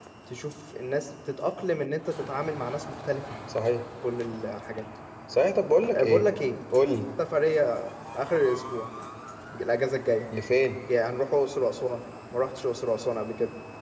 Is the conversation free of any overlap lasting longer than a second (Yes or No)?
Yes